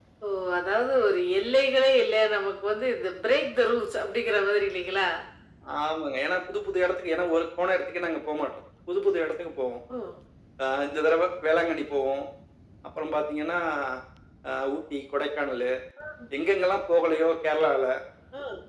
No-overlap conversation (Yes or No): Yes